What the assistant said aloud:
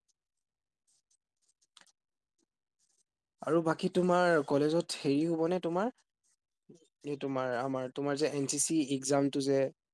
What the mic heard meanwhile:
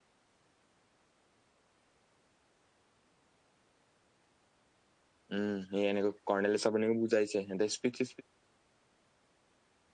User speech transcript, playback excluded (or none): উম সেই এনেকৈ কৰ্ণাললেল চব এনেক যাইছে দে স্পিতি